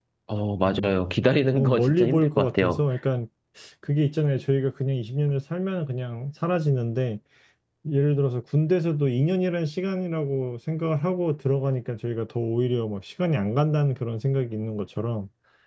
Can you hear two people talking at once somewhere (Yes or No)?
Yes